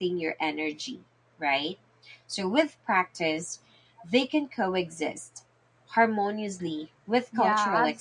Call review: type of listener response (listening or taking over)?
taking over